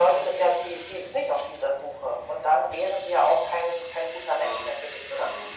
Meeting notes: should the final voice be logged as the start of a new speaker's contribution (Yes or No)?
Yes